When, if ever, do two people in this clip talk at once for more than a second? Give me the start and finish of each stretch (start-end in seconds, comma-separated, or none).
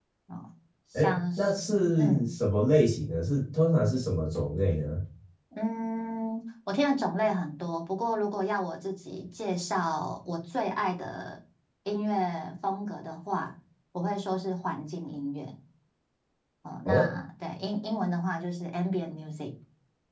1.0-2.3